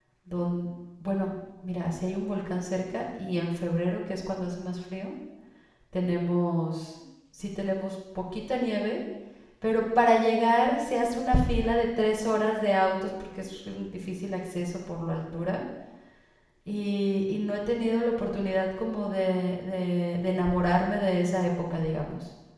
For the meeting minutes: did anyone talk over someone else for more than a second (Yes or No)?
No